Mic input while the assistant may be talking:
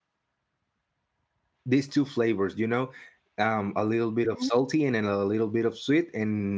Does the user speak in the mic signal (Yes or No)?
Yes